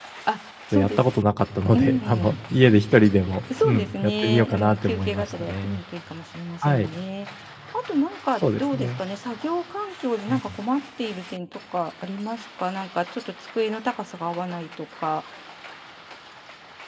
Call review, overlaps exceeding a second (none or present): present